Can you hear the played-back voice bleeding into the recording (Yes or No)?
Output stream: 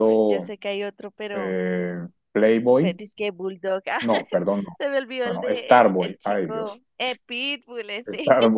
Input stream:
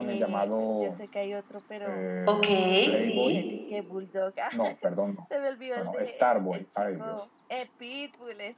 Yes